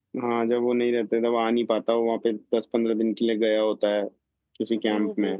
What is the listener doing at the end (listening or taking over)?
taking over